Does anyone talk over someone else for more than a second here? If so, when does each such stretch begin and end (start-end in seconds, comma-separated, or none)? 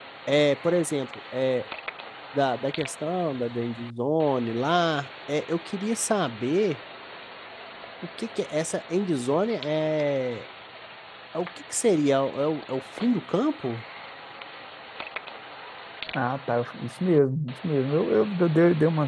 none